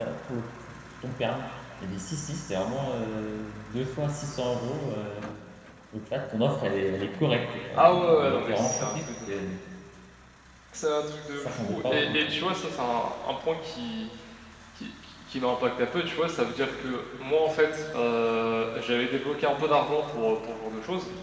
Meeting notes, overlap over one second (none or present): present